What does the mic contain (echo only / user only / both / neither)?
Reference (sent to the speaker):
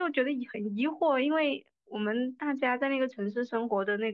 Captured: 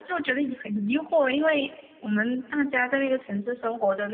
echo only